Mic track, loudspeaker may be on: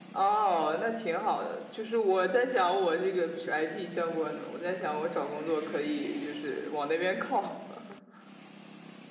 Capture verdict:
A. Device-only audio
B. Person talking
A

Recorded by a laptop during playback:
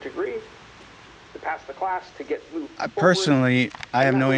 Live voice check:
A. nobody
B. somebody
B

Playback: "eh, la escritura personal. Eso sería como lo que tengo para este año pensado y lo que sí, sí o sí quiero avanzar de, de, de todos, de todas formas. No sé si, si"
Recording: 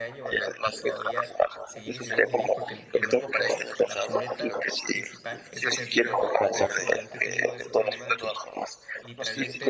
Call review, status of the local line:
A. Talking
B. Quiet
A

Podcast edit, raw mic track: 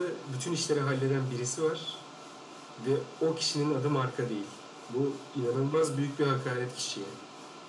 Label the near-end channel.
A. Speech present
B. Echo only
B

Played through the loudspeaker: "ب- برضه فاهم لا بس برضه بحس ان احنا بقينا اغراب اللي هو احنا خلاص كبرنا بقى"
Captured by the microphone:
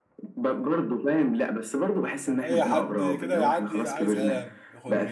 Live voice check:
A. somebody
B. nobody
A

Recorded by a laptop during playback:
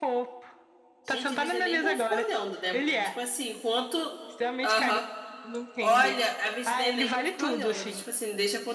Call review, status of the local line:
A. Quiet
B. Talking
B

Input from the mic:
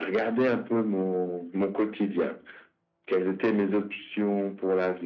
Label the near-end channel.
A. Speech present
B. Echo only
B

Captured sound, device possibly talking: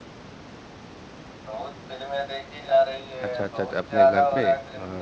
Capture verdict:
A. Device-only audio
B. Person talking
B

